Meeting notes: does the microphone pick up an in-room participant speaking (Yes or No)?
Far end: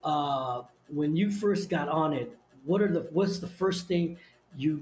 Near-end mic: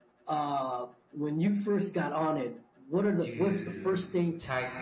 Yes